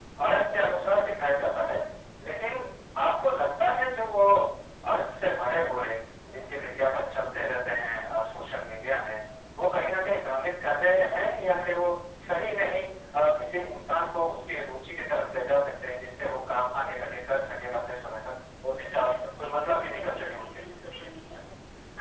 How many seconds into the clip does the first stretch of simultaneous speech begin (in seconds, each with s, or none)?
18.7 s